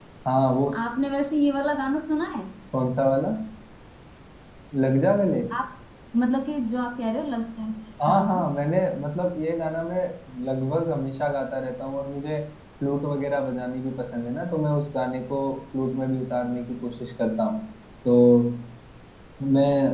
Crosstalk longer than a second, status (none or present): none